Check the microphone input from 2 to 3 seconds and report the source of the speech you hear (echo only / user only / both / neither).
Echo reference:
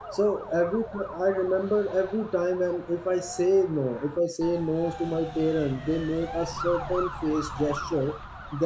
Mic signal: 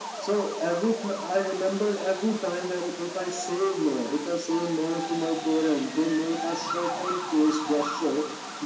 echo only